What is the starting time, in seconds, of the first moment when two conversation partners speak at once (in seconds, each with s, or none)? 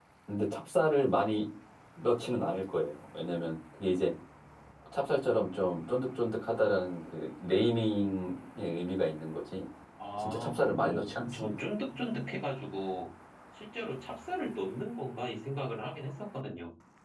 10.2 s